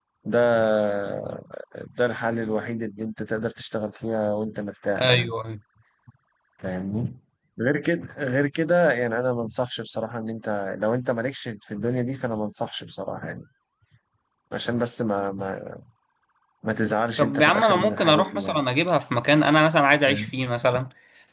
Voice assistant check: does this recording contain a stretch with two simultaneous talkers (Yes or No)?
Yes